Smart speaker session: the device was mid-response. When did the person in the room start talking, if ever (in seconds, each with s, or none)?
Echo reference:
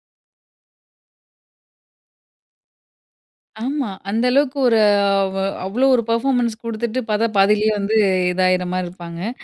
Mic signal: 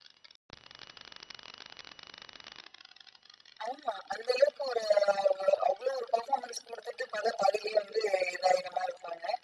none